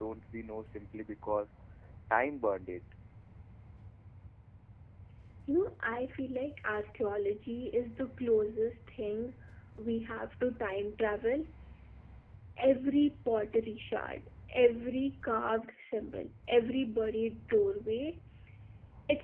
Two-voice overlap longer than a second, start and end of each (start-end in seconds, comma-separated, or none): none